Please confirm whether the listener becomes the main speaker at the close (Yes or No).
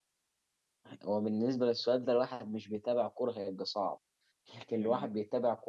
No